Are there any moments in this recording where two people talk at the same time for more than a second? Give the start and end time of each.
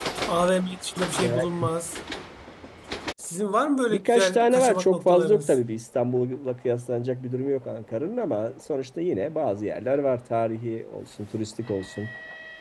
3.9-5.6

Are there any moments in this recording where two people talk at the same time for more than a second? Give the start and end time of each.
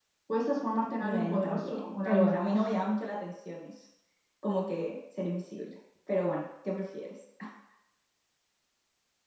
1.0-2.9

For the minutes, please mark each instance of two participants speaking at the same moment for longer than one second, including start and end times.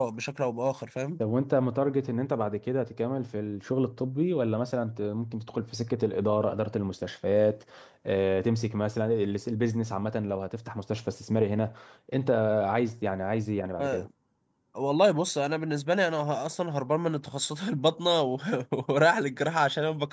none

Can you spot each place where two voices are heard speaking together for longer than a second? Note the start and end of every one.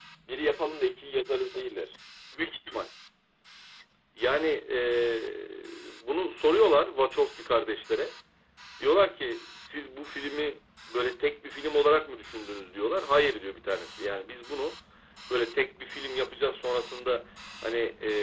none

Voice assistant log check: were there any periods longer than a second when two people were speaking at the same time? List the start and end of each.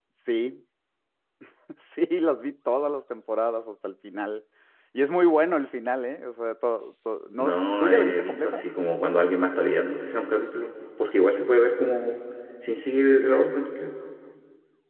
7.4-8.6

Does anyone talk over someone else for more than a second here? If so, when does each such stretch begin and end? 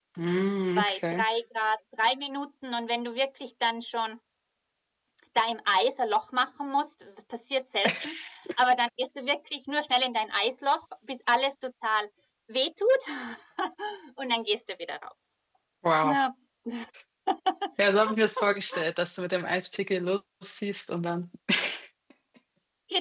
none

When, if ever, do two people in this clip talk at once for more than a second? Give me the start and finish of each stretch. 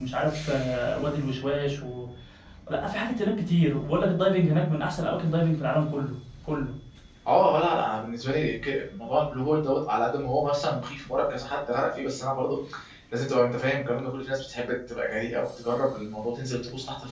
none

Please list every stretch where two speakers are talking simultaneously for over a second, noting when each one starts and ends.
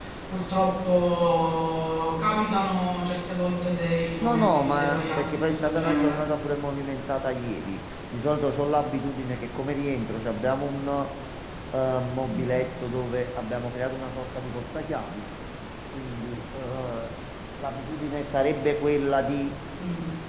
4.2-6.3

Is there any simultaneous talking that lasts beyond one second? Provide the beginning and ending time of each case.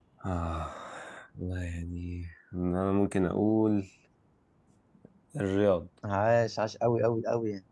none

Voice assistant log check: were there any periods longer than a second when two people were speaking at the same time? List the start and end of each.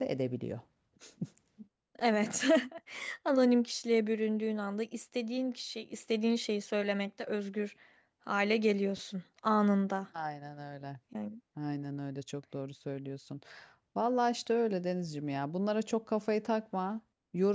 none

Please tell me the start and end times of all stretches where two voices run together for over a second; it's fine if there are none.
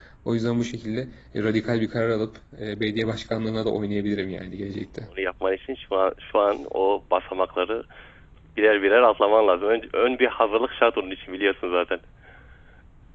none

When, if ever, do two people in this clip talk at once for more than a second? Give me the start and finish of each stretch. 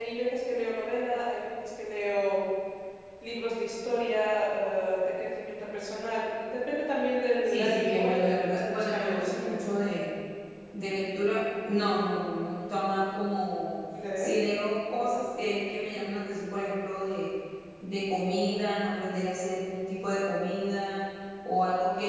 7.5-9.6

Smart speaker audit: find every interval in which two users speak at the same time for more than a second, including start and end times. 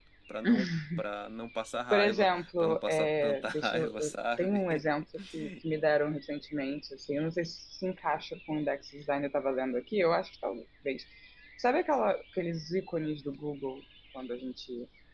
1.9-4.6

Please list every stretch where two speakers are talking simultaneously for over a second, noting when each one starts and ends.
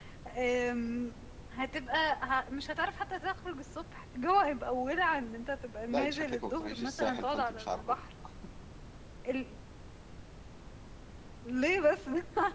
5.9-8.0

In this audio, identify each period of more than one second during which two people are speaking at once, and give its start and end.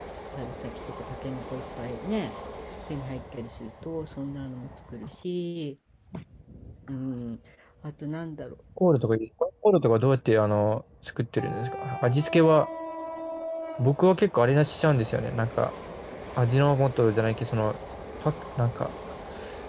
none

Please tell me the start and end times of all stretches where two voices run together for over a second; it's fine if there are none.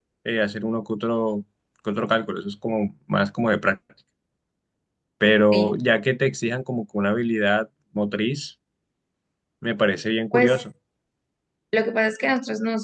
none

